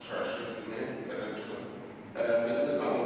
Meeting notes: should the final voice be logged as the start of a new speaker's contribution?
No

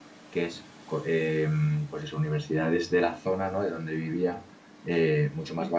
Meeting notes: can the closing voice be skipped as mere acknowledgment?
Yes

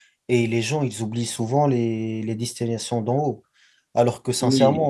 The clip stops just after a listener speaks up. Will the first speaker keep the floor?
Yes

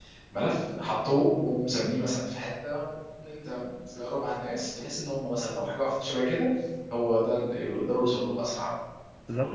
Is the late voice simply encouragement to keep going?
No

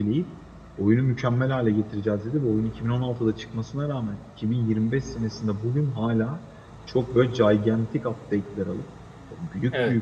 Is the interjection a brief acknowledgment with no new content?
Yes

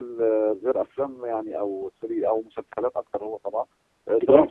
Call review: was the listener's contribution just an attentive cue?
Yes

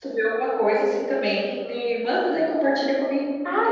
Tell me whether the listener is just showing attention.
No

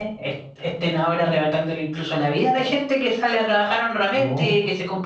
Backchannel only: Yes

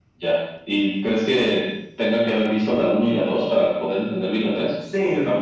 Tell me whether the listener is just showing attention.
No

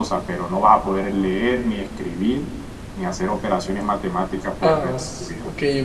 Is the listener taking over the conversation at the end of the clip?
Yes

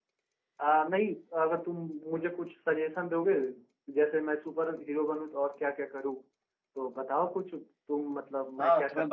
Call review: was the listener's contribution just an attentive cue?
No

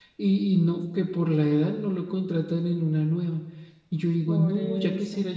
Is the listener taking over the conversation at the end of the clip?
No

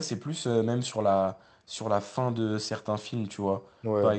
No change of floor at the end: Yes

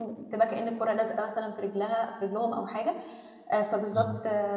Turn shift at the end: No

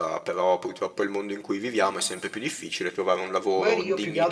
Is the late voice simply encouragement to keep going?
No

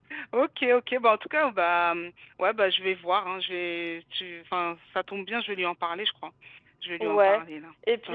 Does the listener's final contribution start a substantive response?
Yes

